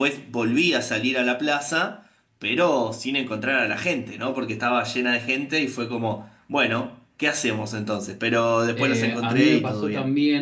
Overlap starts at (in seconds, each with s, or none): 8.8 s